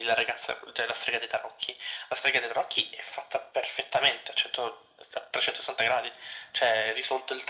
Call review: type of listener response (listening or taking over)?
listening